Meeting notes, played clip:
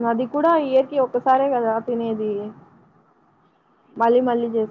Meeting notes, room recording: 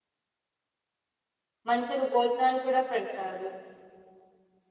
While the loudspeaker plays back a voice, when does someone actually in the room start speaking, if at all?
1.7 s

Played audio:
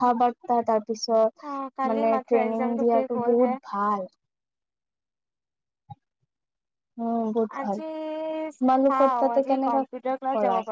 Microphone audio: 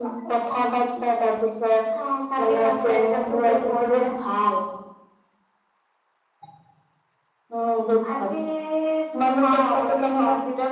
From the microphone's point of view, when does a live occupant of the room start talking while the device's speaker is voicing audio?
none

